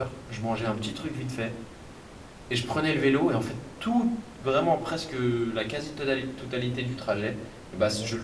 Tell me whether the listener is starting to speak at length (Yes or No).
No